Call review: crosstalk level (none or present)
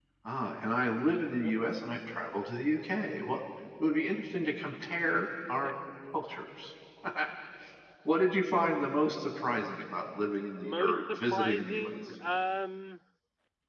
present